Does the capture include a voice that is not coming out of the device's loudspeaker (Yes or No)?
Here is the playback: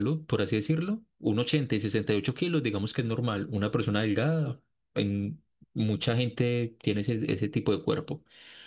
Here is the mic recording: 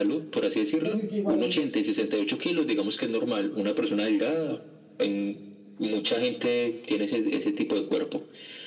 Yes